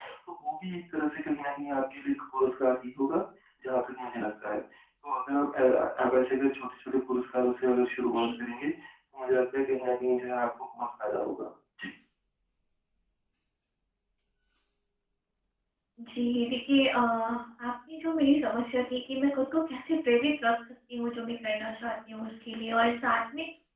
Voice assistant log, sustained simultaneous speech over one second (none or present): none